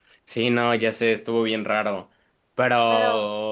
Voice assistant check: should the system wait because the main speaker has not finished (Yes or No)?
Yes